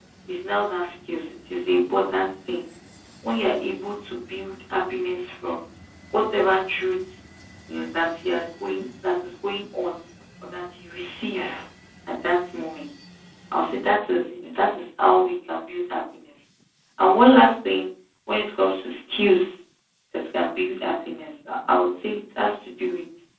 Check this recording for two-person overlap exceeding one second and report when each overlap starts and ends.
none

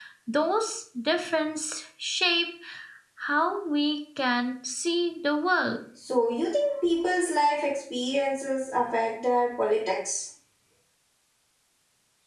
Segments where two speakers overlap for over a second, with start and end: none

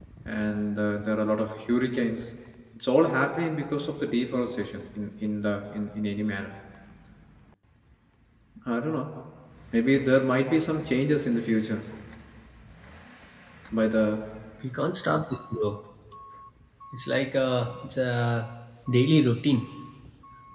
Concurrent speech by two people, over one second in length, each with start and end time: none

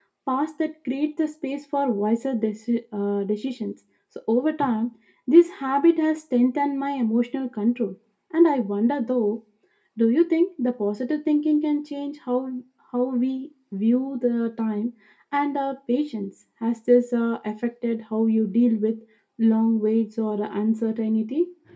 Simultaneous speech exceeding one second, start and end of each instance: none

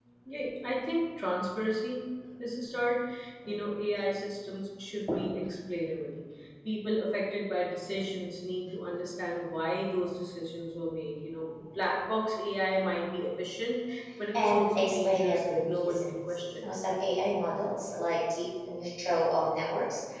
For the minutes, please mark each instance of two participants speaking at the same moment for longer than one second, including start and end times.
14.3-16.7

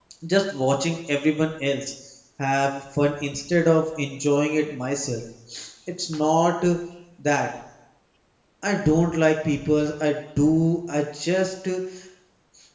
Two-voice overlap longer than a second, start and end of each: none

